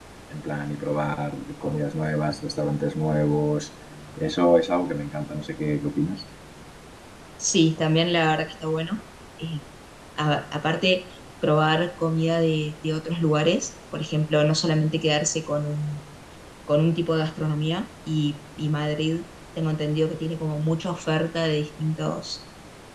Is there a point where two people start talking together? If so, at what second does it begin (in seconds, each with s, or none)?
none